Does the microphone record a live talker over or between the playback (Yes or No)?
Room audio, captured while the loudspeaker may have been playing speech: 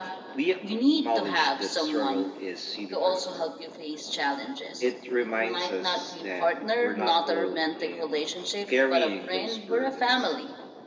No